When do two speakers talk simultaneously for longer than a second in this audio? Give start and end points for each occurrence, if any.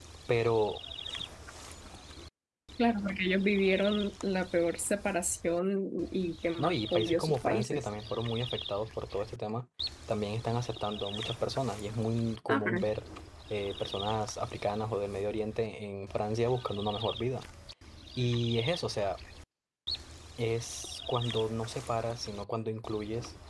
6.6-7.8

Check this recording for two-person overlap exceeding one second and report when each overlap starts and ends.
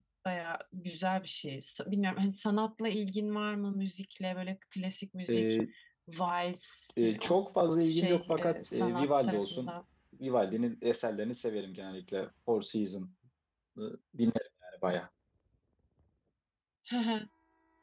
7.9-9.7

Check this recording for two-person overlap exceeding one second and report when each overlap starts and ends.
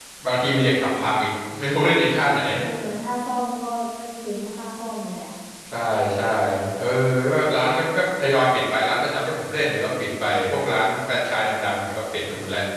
none

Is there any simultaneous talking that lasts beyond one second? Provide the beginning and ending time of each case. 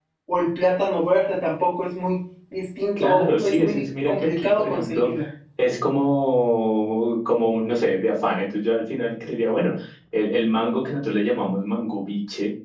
3.0-5.1

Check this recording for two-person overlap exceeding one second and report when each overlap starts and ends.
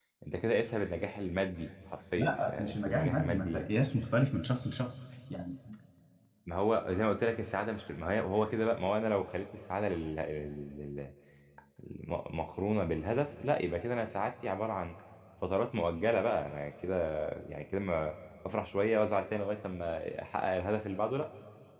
2.1-3.7

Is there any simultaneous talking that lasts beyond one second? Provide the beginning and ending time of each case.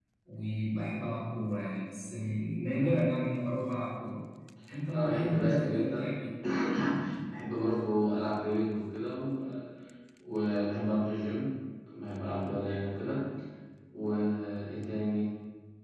4.9-6.1

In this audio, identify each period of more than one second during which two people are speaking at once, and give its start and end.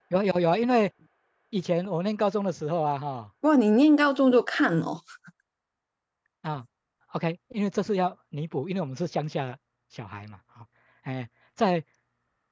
none

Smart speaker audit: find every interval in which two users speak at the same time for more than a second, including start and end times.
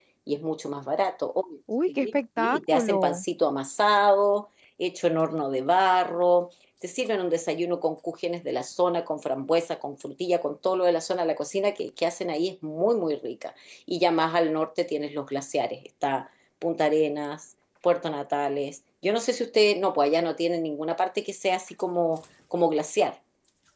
1.9-3.2

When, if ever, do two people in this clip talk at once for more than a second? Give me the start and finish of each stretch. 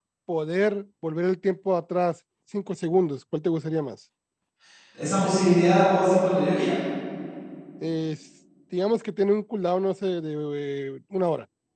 none

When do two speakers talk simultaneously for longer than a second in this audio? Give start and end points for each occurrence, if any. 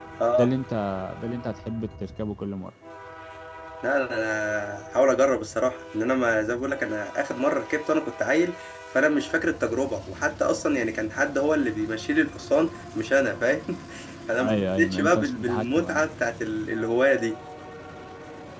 14.4-16.1

